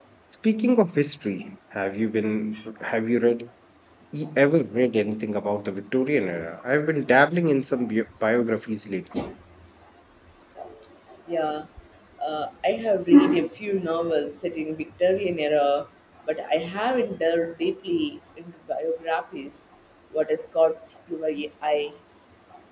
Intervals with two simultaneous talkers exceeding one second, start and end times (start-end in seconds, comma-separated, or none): none